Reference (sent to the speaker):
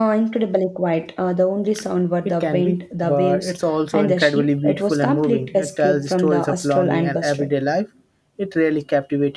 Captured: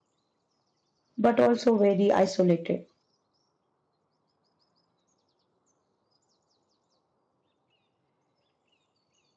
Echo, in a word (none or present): none